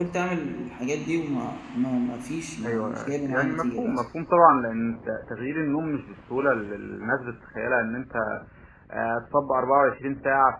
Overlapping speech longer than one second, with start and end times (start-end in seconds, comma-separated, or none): 2.6-4.0